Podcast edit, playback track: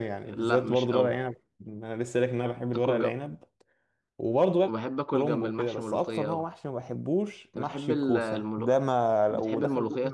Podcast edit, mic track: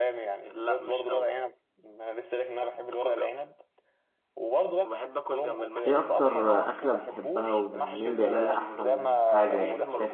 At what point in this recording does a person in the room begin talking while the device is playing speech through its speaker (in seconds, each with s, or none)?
5.9 s